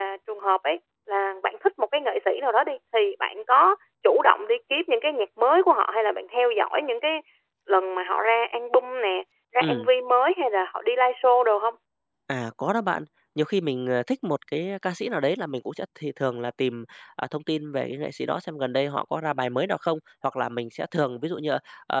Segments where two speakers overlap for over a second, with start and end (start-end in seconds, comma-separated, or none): none